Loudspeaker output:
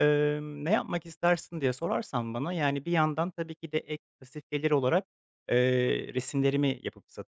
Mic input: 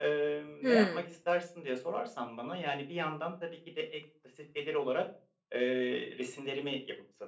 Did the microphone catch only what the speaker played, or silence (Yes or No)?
No